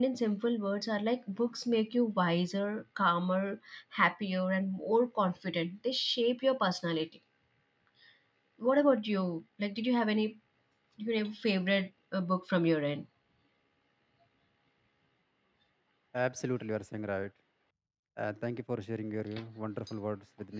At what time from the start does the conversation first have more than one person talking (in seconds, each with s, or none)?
none